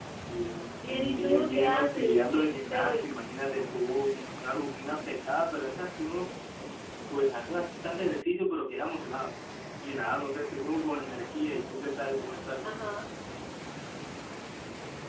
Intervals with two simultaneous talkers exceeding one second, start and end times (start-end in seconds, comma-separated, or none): 0.8-3.1